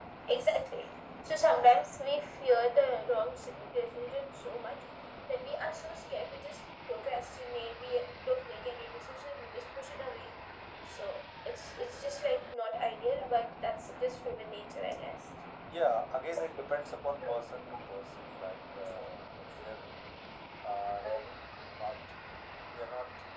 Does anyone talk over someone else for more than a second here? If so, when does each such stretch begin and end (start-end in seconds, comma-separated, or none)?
none